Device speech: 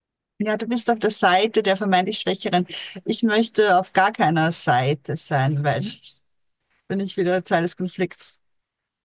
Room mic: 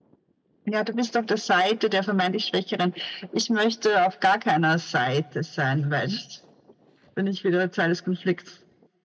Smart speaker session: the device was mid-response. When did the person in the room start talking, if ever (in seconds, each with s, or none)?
none